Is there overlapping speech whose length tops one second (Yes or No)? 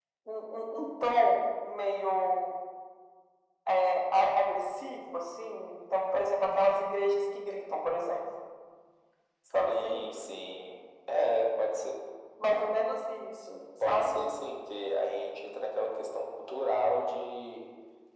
No